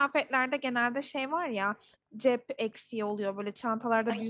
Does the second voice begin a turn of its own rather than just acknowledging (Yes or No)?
No